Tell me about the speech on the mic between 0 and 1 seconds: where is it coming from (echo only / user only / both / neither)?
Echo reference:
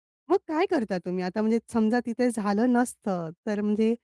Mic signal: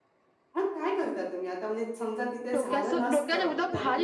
echo only